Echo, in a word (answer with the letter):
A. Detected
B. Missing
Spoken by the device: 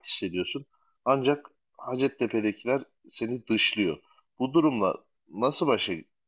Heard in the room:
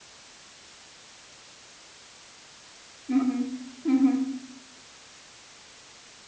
B